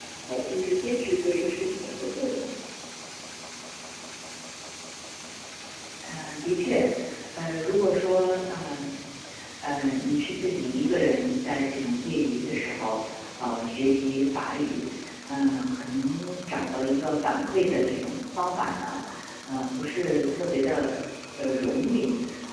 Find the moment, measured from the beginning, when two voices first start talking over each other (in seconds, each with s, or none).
none